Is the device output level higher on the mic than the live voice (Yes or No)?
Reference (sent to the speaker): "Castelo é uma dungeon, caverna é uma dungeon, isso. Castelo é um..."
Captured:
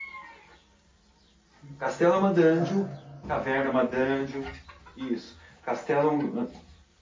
Yes